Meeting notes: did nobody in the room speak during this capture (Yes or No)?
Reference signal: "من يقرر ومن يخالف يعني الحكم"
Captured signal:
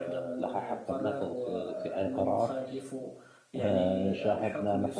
No